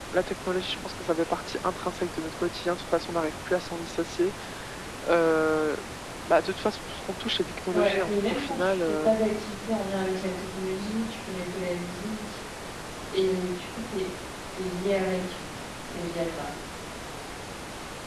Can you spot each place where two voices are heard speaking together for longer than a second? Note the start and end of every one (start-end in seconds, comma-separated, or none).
7.7-9.2